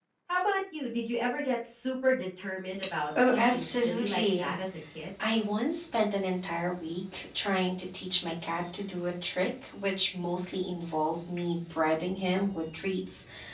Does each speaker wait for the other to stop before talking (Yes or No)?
No